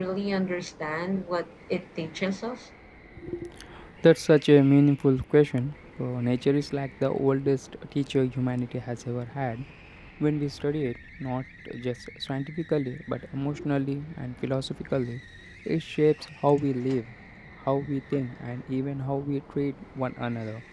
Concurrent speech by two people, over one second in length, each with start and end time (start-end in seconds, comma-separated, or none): none